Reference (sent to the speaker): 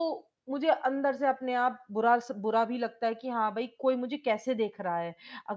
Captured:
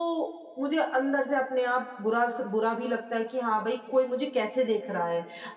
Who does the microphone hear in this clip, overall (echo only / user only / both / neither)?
echo only